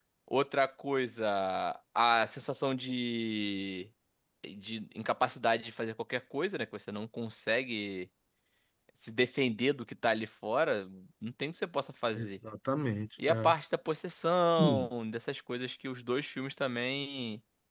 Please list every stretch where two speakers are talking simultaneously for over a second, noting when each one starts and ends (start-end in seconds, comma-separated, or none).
none